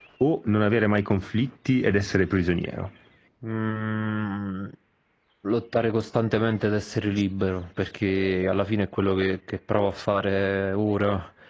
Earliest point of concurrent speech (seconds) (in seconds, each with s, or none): none